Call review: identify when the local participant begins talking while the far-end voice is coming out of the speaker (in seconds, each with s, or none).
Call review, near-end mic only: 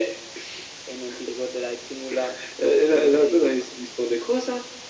none